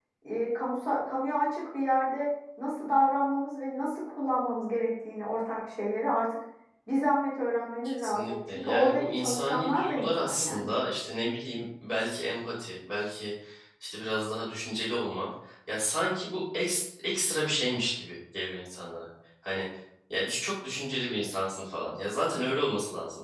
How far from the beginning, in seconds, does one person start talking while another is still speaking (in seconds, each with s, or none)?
8.0 s